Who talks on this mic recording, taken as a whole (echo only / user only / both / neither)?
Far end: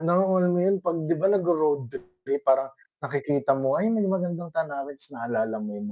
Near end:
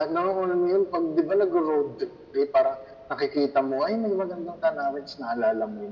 echo only